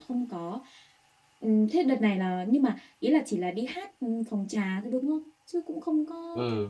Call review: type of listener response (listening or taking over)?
taking over